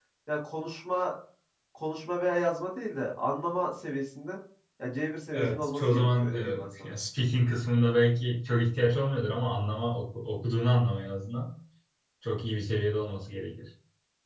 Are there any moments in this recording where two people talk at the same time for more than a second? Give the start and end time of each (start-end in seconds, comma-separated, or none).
5.3-6.9